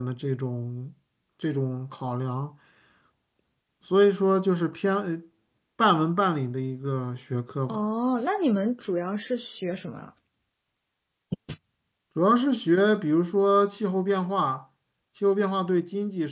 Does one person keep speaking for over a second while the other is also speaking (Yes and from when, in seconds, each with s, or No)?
No